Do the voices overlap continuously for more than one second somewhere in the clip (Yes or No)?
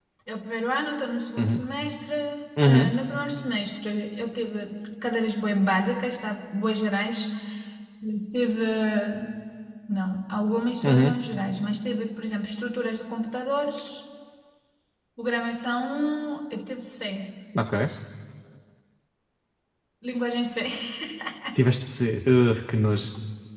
No